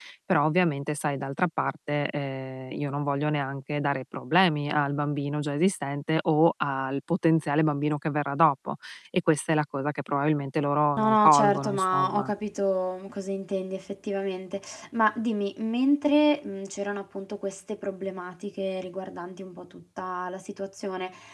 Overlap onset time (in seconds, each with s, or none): 11.0 s